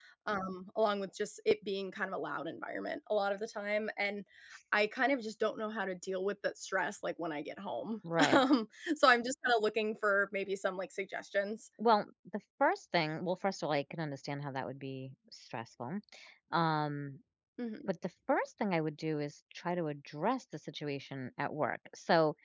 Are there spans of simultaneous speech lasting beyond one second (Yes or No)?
No